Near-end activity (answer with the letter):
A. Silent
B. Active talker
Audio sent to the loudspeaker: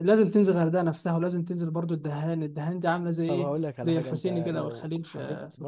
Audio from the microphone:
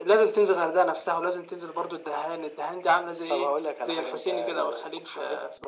A